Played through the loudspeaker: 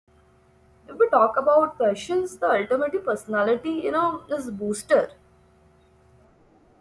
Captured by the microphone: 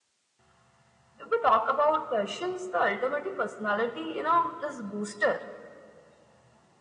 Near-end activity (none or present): none